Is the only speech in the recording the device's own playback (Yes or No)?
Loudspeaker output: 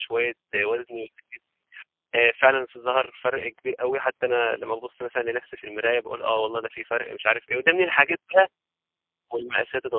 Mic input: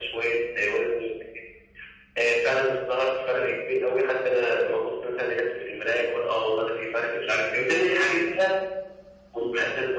Yes